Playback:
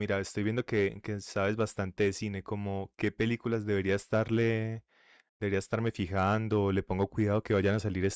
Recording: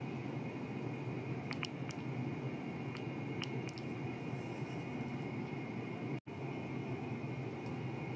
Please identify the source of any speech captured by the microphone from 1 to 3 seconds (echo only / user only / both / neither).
neither